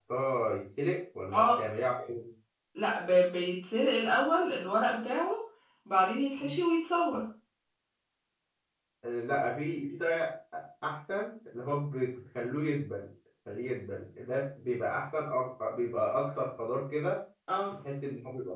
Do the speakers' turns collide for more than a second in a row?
No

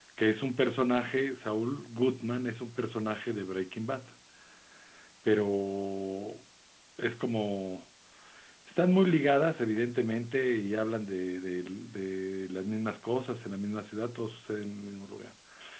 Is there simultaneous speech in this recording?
No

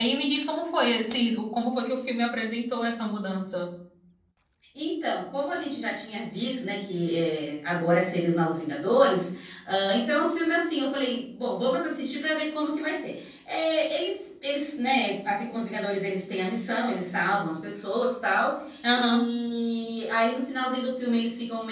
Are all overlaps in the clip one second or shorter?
Yes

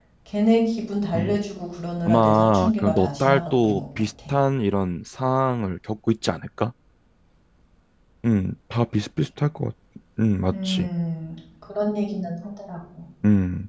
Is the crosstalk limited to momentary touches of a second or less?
No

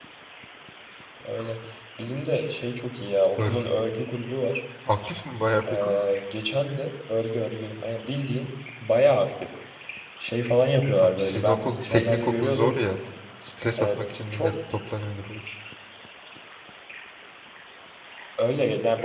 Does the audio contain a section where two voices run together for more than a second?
Yes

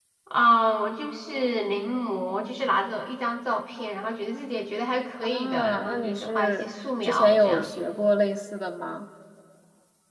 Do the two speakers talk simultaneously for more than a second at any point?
Yes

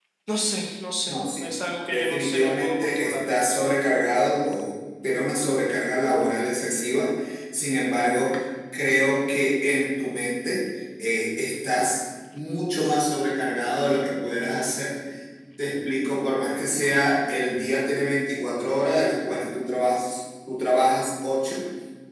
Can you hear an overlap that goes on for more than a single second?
Yes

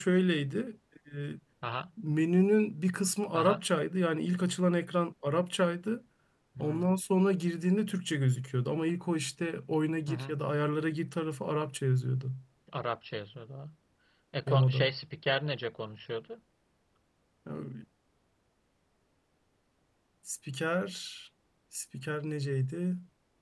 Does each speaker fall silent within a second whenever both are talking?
Yes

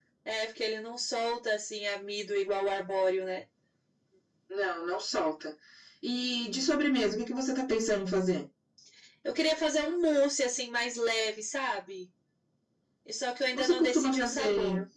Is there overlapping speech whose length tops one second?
Yes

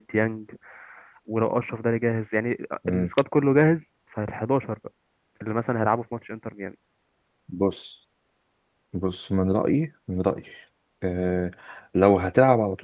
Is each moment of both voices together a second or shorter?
Yes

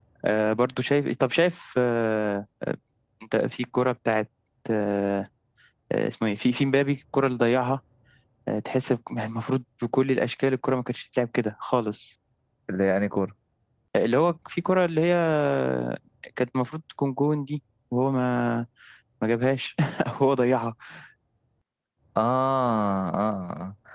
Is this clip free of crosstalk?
Yes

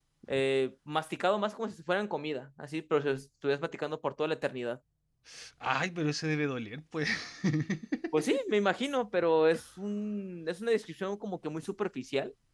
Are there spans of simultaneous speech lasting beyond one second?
No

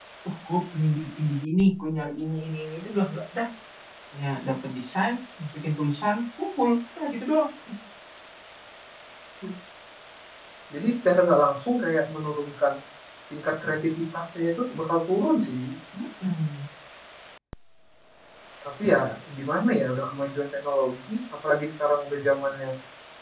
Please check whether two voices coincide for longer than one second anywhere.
No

